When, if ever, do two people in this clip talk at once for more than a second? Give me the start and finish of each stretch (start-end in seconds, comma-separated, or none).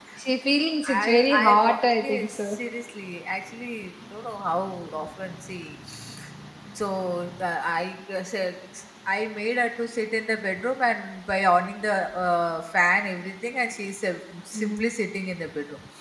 0.9-2.6